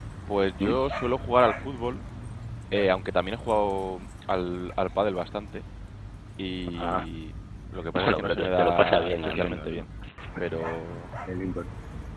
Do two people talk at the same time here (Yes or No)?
Yes